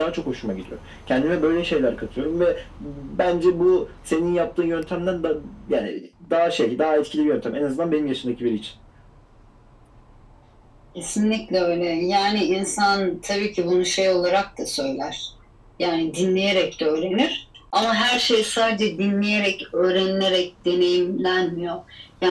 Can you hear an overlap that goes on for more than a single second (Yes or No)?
No